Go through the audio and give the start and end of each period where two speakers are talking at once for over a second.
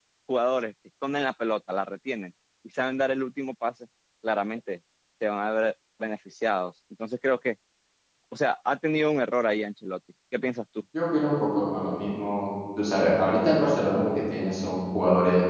none

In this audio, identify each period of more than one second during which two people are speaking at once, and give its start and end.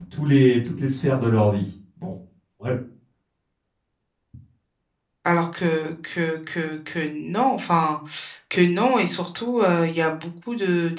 none

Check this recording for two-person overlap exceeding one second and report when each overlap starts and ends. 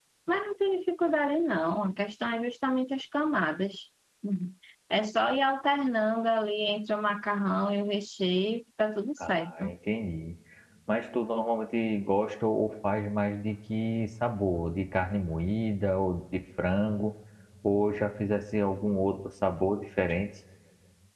none

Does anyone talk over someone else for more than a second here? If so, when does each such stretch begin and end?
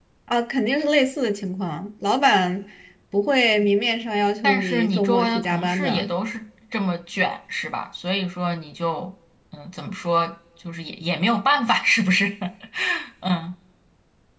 4.4-6.1

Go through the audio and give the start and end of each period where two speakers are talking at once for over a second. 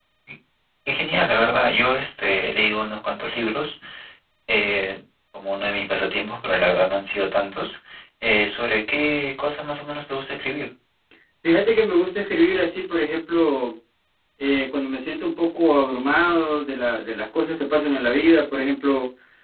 none

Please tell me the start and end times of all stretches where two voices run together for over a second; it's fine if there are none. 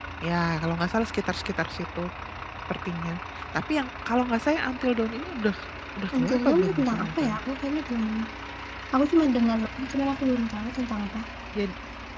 6.2-7.4

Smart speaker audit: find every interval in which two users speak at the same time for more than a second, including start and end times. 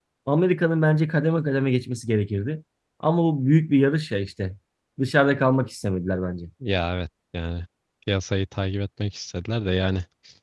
none

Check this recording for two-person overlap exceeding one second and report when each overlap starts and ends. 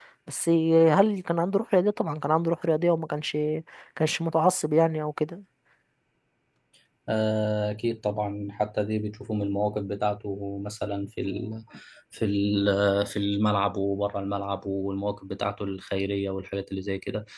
none

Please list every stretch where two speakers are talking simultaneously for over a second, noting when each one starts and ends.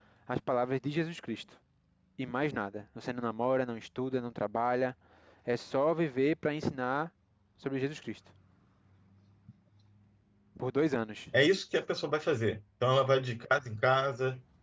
none

